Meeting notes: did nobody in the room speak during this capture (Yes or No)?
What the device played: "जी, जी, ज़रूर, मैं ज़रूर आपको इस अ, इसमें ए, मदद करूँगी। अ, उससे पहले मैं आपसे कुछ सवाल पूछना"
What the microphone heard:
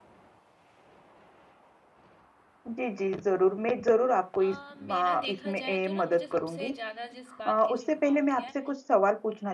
No